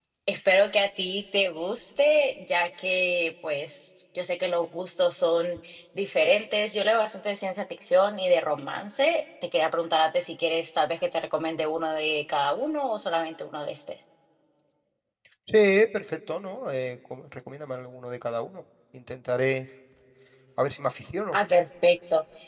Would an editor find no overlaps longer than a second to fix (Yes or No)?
Yes